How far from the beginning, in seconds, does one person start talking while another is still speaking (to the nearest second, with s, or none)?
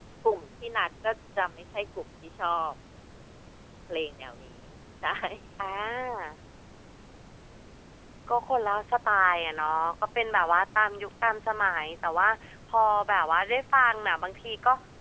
none